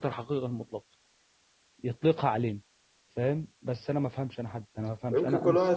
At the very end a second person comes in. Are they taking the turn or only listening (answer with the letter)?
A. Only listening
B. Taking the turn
B